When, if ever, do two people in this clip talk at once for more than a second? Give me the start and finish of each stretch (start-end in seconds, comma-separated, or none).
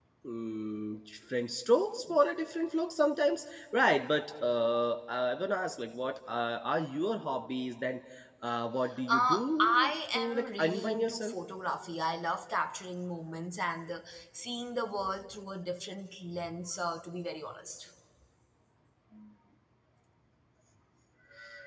9.1-11.3